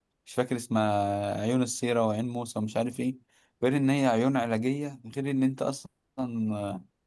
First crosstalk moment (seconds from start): none

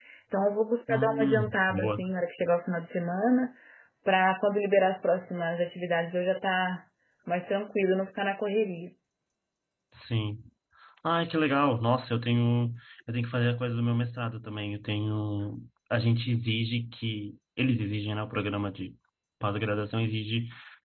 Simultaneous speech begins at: 1 s

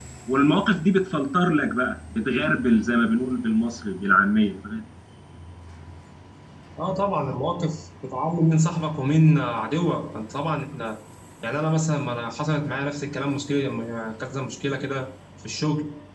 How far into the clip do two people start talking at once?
none

